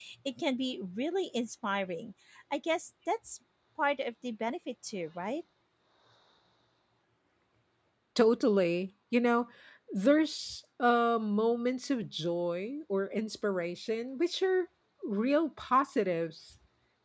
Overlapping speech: No

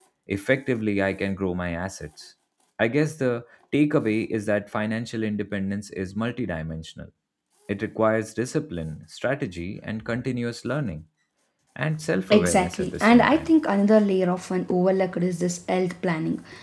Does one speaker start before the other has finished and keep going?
Yes, from 12.3 s

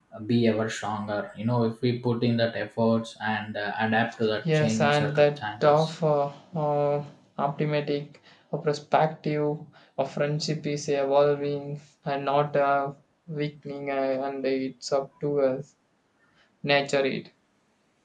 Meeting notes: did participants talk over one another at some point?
Yes, from 4.4 s

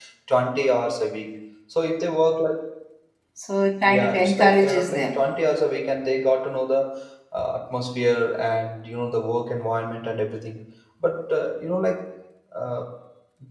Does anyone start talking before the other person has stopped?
Yes, from 3.9 s

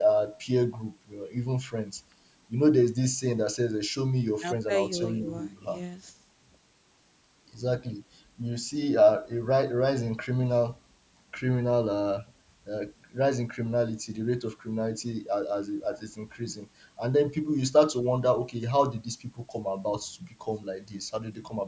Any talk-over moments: Yes, from 4.4 s

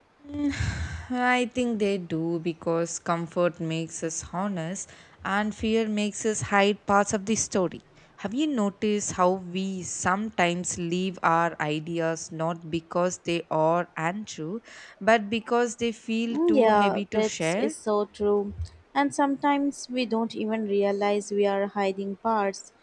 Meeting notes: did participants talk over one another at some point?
Yes, from 16.3 s

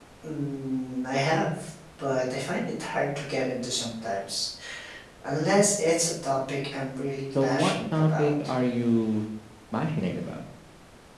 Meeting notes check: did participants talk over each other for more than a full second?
Yes, from 7.3 s

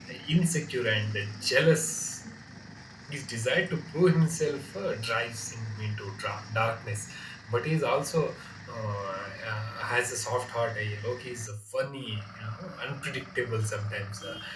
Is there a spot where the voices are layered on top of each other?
No

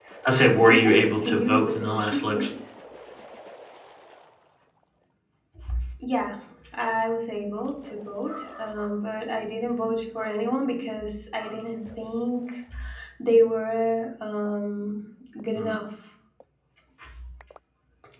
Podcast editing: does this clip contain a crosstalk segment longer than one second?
Yes, from 0.6 s

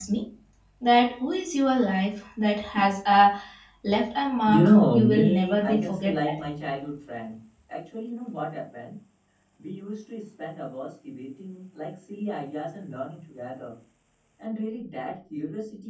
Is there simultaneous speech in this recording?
Yes, from 4.5 s

